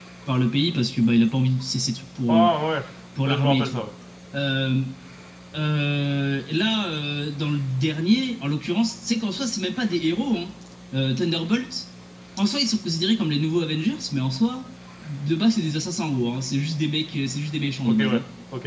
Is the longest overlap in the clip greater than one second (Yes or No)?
No